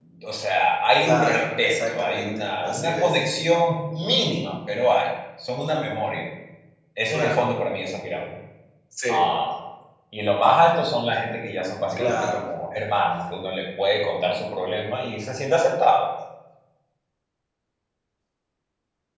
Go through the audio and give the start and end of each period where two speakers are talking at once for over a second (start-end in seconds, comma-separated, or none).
1.0-3.2